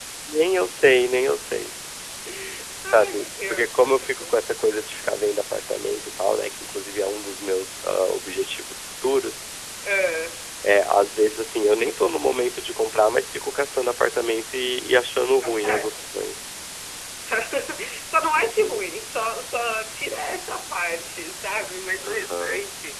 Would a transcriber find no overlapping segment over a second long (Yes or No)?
No